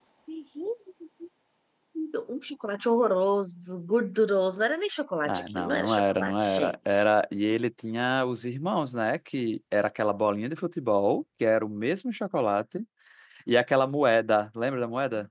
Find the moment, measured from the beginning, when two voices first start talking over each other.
5.2 s

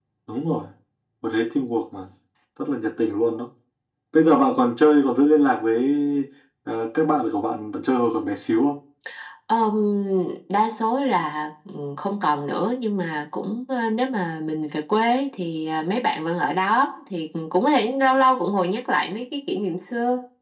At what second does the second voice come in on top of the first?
none

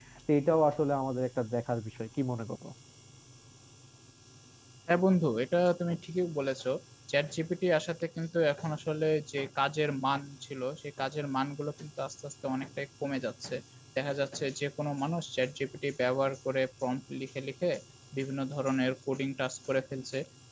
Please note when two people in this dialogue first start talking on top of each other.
none

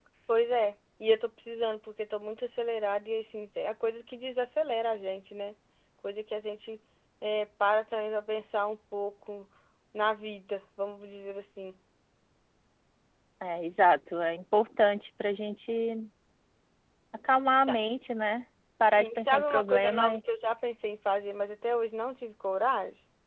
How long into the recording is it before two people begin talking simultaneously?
19.0 s

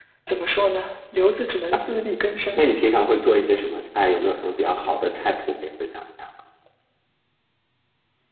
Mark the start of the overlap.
none

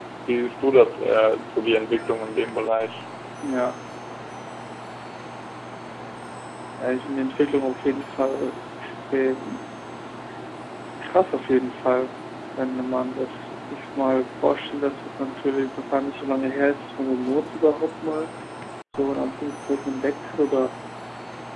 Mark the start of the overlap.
none

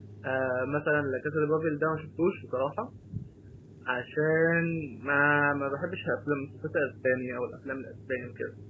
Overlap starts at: none

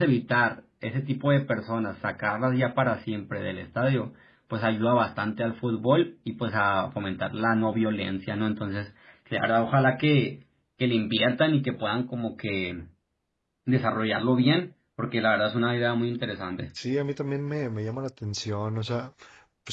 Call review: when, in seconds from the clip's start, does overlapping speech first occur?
none

